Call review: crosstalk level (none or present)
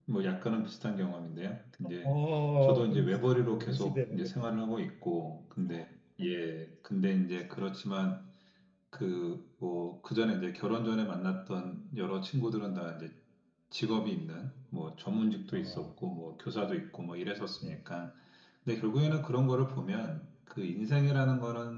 present